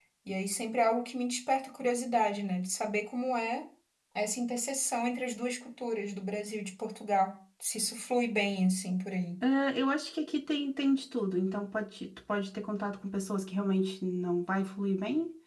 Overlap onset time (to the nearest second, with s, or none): none